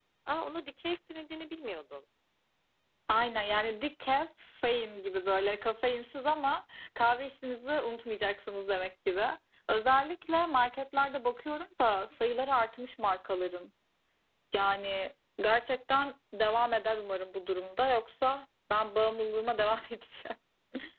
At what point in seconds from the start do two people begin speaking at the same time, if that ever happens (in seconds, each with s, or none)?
none